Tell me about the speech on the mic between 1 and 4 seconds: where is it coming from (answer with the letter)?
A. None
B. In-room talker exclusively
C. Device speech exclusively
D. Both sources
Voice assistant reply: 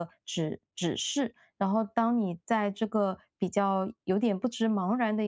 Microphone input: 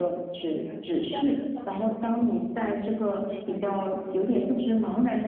D